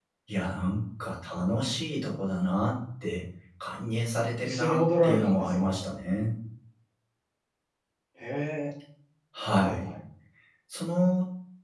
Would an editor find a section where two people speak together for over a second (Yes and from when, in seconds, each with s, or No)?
Yes, from 4.4 s